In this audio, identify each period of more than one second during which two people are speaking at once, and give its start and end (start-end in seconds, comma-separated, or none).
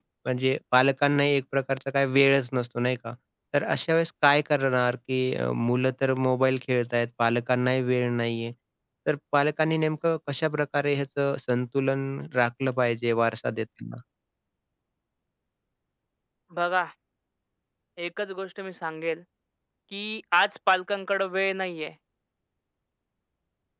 none